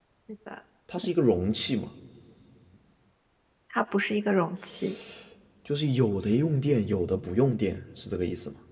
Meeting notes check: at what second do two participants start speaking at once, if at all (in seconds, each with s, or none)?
none